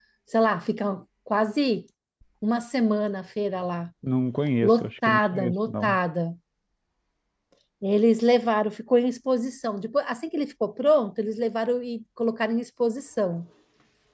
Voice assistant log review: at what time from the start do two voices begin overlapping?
4.6 s

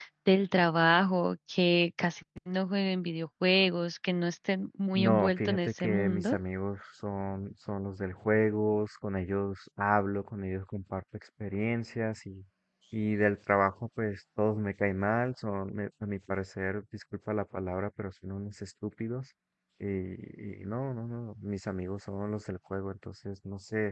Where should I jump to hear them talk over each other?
4.9 s

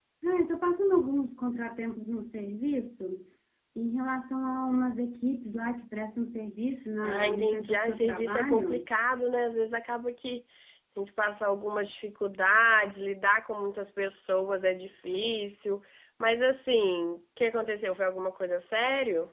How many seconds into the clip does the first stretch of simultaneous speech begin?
7.0 s

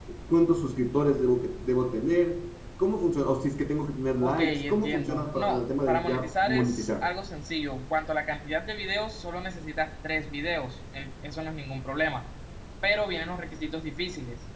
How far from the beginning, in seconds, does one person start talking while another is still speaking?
4.2 s

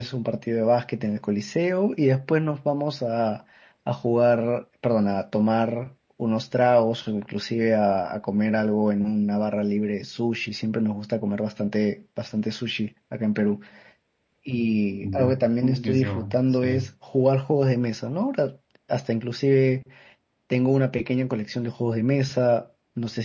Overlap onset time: 15.0 s

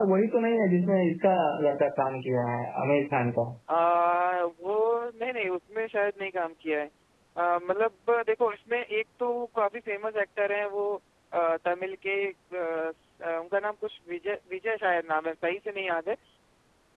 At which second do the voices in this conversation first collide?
none

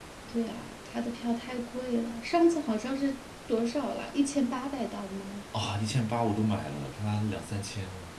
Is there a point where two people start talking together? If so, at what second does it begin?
none

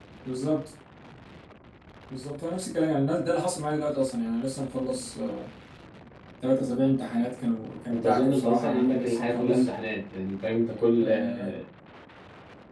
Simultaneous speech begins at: 7.9 s

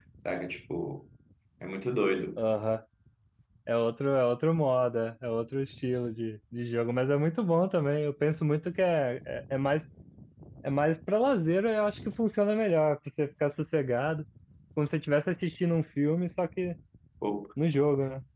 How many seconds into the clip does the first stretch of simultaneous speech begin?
none

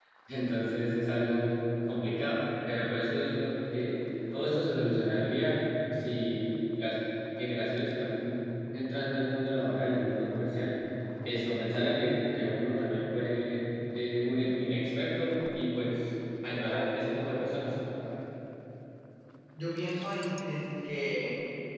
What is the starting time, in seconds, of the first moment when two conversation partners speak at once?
16.5 s

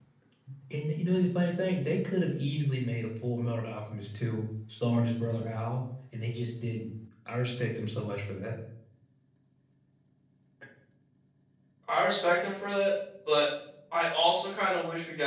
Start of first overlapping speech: none

